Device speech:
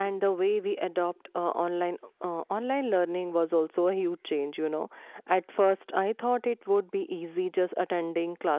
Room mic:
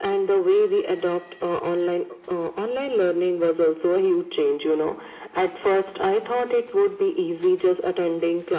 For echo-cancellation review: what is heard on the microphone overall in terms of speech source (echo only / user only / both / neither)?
echo only